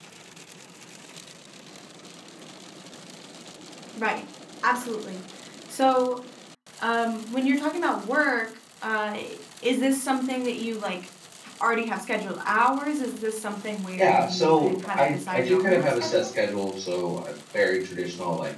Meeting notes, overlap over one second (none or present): present